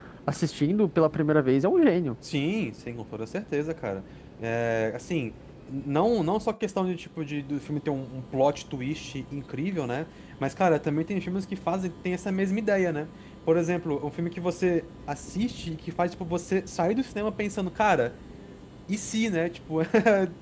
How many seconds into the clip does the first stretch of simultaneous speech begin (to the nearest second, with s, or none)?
none